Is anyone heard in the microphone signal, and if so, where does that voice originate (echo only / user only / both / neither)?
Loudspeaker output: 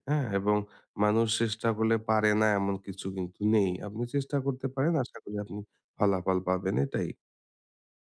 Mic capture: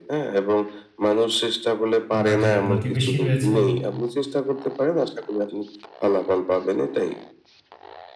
both